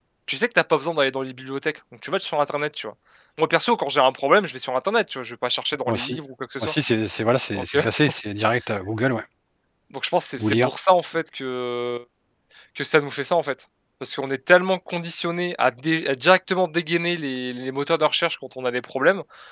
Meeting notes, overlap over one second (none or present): none